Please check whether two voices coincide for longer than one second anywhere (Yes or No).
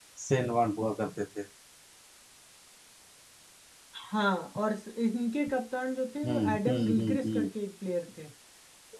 Yes